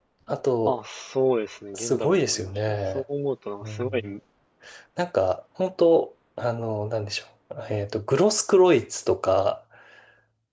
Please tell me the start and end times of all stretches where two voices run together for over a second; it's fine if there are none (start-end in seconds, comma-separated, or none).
1.7-3.0